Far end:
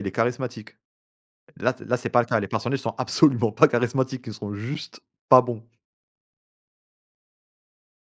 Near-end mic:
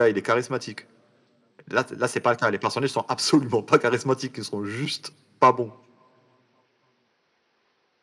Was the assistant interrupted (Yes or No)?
No